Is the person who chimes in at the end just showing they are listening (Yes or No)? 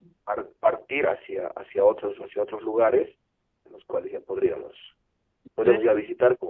Yes